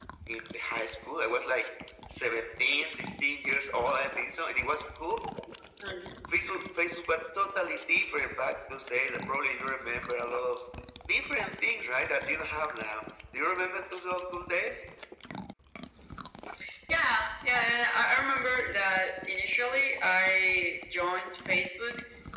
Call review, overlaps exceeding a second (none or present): none